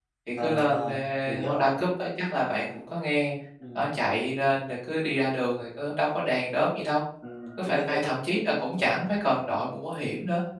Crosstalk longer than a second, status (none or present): present